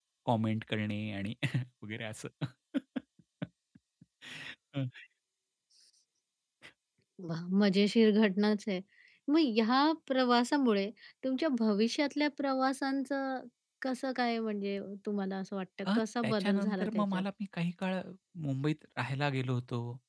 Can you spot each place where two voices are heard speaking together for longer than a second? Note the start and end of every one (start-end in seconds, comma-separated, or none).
15.9-17.2